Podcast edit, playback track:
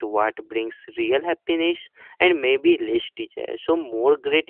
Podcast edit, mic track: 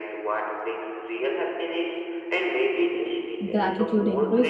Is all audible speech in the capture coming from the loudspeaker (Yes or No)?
No